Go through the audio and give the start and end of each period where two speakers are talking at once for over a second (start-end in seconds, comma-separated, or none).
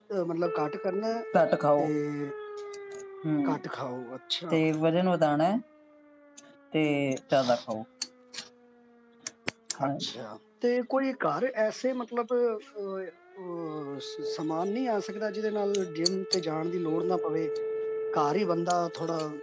none